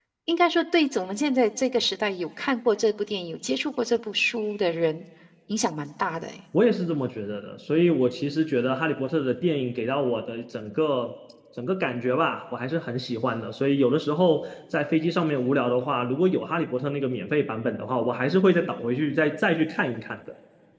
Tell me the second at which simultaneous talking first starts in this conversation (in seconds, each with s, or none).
none